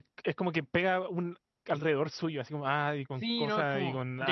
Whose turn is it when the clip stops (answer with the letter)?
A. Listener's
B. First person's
A